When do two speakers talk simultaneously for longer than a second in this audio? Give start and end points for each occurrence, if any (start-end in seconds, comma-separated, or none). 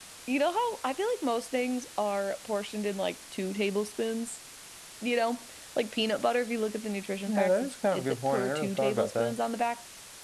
7.3-9.4